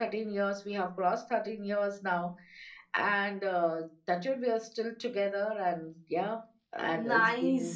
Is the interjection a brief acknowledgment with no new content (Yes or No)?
No